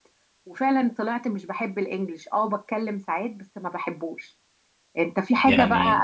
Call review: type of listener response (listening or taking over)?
listening